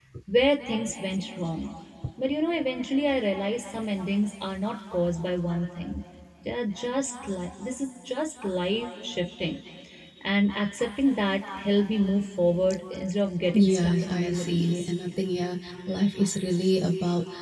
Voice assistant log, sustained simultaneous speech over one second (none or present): present